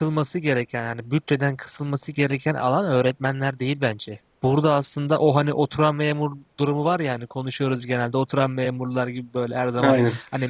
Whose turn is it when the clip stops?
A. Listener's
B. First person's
B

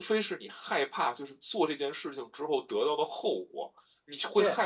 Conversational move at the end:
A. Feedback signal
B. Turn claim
A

